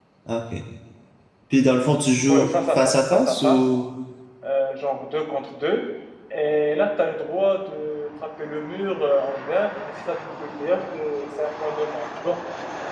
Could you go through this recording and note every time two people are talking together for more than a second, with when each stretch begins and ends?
2.3-3.6

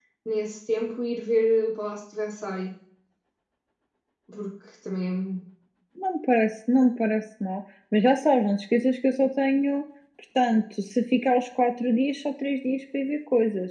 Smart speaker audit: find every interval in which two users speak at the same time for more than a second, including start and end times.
none

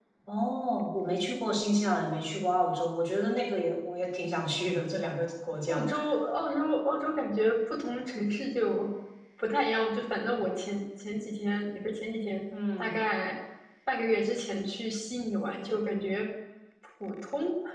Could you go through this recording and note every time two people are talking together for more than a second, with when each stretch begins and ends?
none

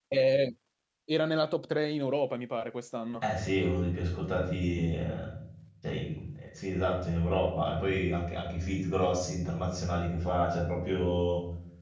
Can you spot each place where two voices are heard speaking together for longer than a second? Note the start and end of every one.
none

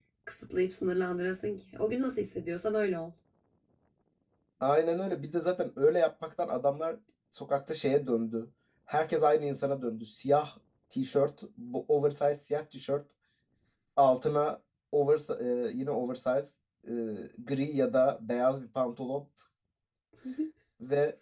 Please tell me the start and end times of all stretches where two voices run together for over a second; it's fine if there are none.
none

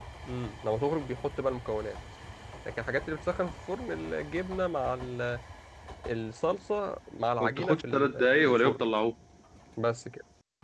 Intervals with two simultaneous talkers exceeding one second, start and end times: 7.4-8.9

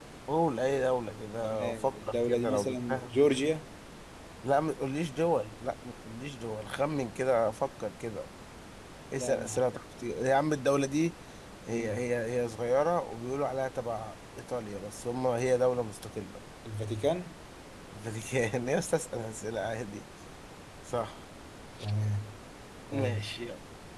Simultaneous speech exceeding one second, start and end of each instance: 1.4-3.1

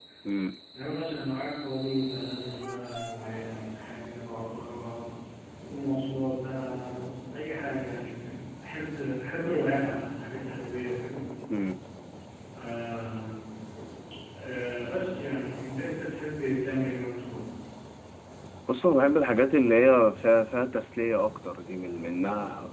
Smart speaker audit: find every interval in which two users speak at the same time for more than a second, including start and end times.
none

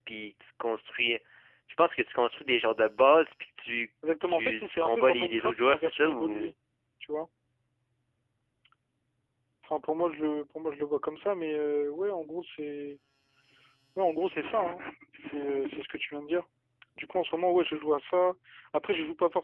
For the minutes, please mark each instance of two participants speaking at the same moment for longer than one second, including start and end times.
4.2-6.5

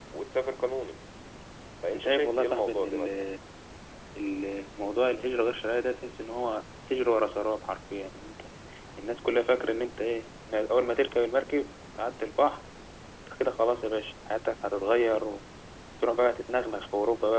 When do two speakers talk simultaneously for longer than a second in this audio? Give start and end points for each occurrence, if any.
1.9-3.2

